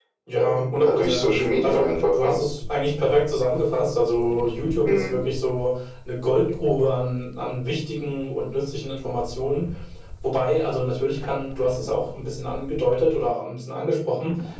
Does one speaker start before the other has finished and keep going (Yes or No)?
Yes